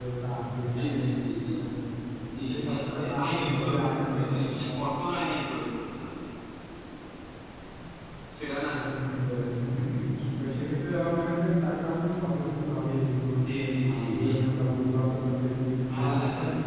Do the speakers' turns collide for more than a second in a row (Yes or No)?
Yes